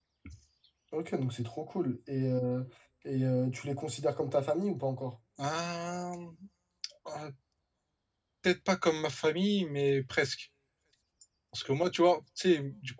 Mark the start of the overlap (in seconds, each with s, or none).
none